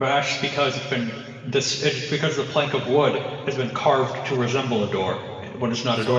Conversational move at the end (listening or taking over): taking over